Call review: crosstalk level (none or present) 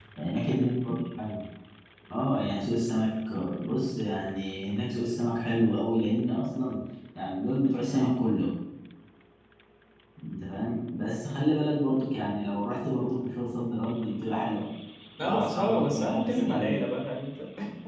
present